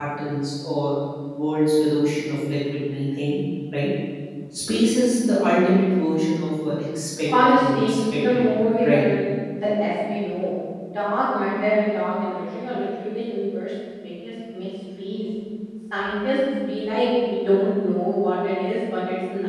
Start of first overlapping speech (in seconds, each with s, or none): 7.3 s